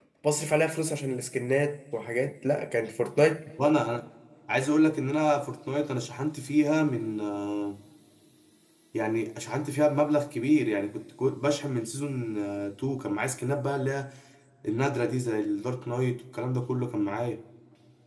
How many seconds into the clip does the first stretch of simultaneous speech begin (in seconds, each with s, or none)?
none